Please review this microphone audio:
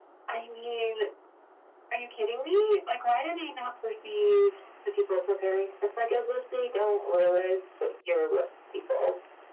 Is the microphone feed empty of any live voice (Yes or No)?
Yes